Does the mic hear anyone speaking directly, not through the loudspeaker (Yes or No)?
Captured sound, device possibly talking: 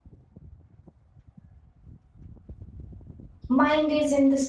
Yes